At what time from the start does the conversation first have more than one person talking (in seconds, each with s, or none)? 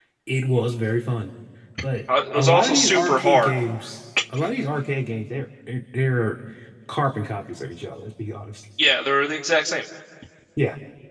2.4 s